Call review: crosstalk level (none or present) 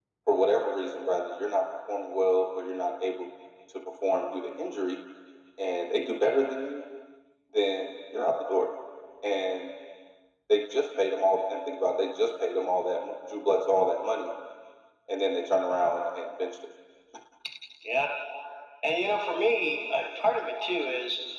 none